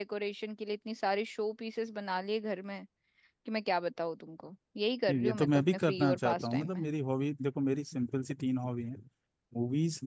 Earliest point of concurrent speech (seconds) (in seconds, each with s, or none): 5.1 s